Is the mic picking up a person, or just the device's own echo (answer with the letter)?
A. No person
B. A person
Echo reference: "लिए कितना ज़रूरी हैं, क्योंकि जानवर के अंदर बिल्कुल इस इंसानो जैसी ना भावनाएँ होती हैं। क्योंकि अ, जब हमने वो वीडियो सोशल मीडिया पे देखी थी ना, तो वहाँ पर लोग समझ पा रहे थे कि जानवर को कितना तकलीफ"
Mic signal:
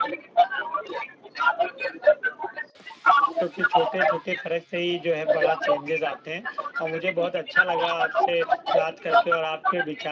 B